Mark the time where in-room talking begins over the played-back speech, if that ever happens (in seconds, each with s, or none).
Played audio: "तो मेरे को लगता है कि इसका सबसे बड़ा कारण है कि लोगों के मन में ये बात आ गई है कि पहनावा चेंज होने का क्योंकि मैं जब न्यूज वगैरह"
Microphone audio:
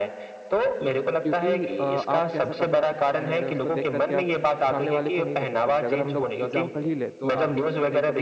1.2 s